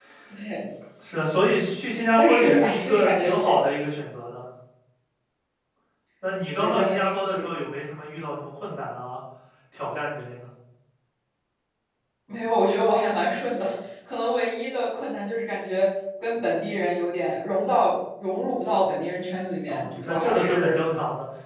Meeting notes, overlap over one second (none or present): present